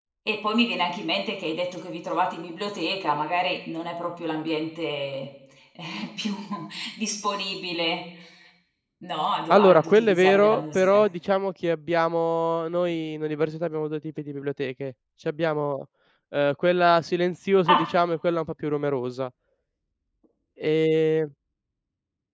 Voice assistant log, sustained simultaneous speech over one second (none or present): present